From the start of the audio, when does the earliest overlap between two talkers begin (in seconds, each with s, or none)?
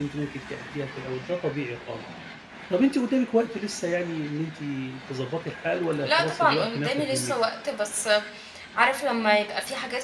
6.0 s